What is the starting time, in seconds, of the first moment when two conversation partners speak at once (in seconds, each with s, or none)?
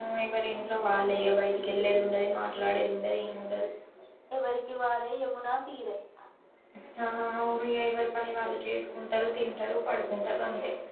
none